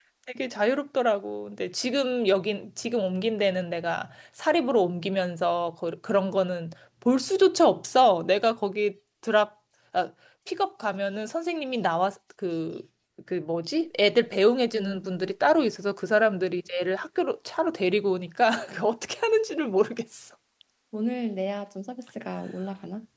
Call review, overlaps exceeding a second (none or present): none